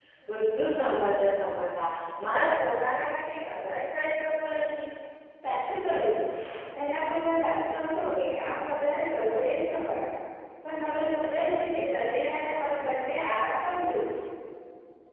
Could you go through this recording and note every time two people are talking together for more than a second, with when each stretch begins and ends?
none

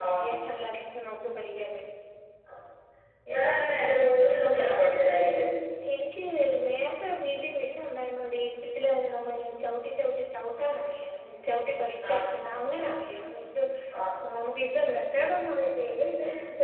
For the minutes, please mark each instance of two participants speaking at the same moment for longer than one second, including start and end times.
none

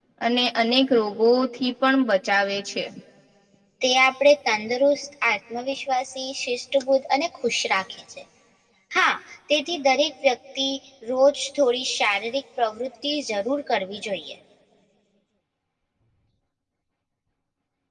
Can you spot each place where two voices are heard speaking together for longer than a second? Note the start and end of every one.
none

